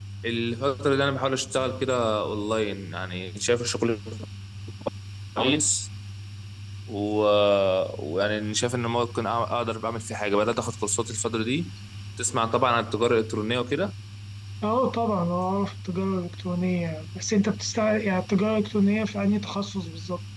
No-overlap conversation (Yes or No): Yes